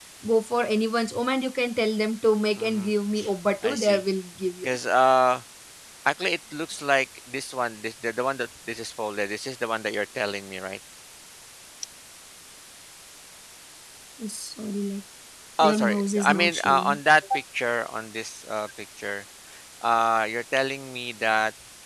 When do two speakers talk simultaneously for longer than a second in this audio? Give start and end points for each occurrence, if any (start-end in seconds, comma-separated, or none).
15.6-17.0